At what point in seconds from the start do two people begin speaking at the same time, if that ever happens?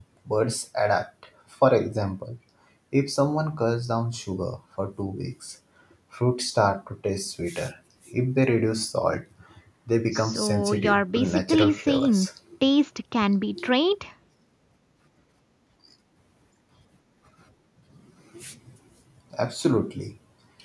10.1 s

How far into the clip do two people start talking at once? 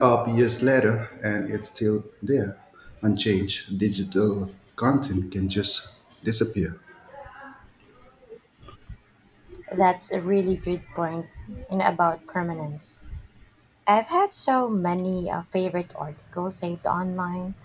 none

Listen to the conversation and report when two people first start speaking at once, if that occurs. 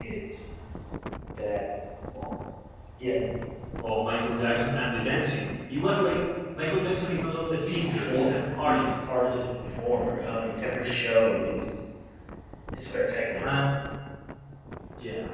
7.6 s

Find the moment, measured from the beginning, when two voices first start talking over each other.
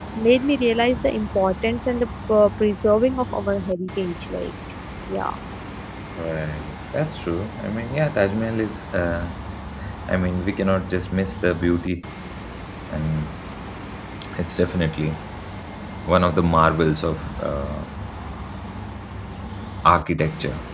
none

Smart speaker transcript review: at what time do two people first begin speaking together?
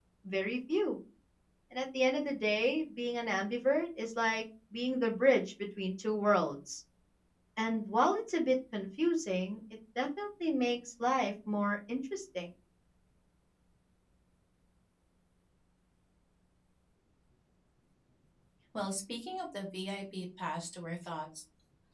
none

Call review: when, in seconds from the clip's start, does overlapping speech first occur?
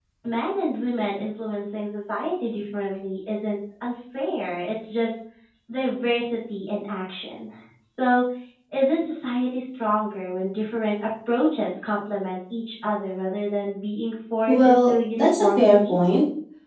14.5 s

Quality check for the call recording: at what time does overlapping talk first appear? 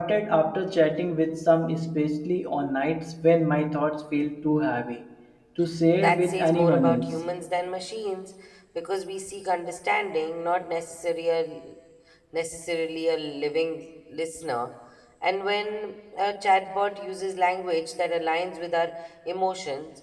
6.0 s

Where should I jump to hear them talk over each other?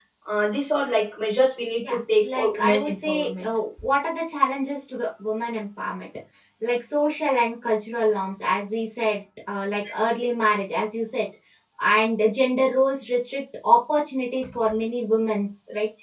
1.8 s

